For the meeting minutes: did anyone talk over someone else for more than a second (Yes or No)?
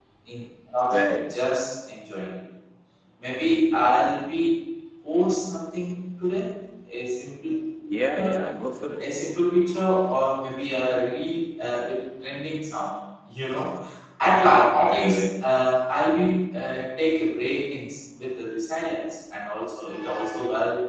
No